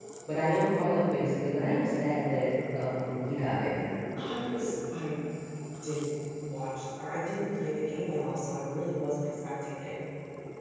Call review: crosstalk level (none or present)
none